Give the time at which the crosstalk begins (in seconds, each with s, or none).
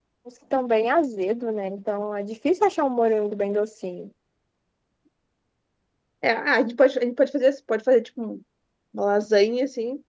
none